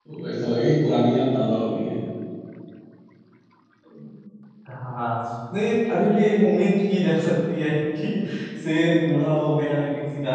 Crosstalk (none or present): none